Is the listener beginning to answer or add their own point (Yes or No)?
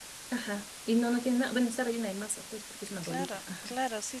Yes